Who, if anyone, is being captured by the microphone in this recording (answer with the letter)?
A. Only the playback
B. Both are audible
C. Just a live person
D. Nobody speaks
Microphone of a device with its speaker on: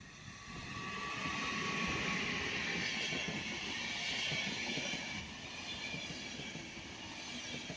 D